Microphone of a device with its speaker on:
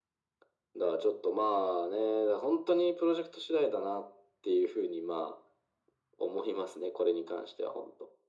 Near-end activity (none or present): none